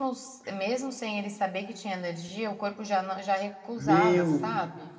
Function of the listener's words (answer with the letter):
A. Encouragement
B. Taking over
B